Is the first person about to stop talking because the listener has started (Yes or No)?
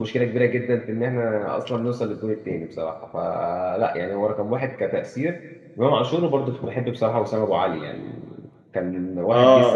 Yes